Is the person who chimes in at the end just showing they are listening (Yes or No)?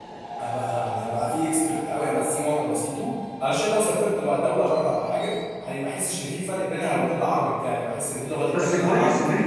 No